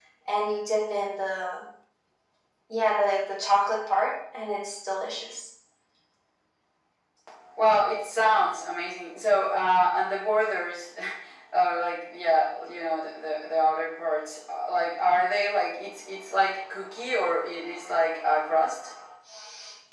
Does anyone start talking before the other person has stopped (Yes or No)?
No